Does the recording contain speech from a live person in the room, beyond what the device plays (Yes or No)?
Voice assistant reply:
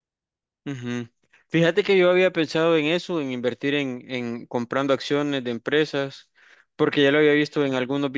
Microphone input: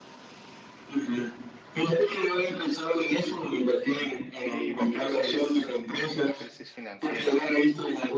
Yes